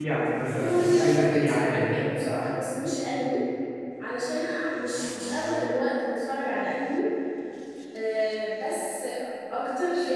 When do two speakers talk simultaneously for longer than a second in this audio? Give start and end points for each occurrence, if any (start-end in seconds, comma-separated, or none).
0.6-1.8